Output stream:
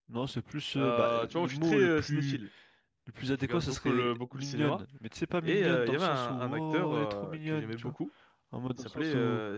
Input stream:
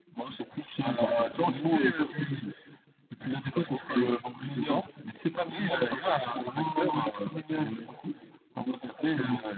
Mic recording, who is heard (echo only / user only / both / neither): echo only